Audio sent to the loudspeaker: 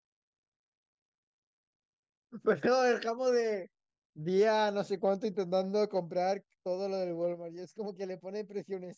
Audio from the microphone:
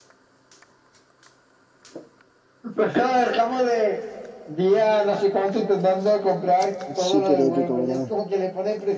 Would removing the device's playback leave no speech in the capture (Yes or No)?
No